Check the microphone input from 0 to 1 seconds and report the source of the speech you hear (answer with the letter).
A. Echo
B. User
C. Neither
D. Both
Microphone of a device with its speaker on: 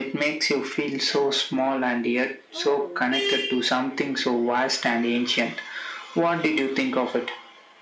A